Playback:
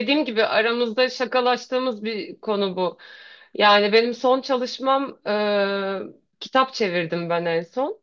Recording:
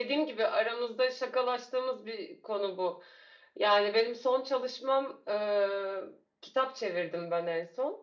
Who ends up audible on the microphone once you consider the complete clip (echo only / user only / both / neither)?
echo only